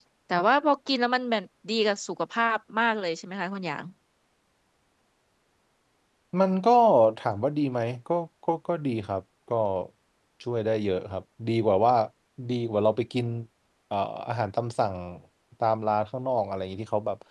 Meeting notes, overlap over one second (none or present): none